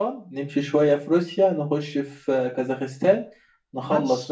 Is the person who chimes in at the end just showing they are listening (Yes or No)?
No